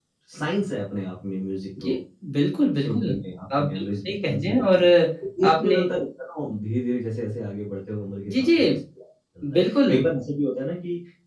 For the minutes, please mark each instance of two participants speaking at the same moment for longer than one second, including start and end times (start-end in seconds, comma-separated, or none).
3.6-4.8